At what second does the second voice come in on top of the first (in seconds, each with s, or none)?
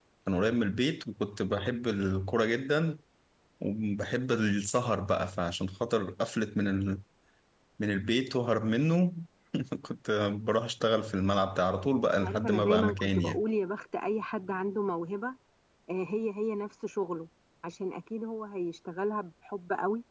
12.1 s